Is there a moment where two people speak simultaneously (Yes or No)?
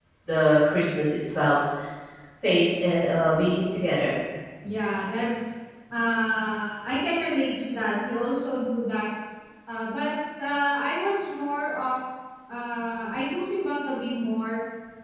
No